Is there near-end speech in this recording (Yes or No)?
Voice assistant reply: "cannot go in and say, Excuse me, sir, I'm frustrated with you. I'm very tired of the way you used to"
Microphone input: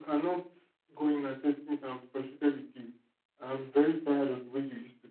No